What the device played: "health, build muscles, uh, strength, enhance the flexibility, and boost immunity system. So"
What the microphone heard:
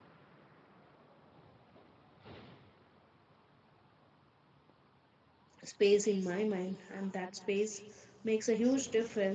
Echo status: none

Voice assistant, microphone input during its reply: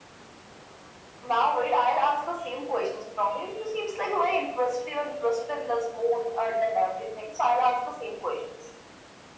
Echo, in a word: present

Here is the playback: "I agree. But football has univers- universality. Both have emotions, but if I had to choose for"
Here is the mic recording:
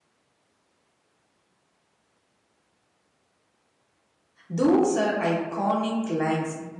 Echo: none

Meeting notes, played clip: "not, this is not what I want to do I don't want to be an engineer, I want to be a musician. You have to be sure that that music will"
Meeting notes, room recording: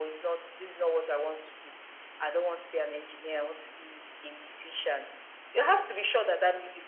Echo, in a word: present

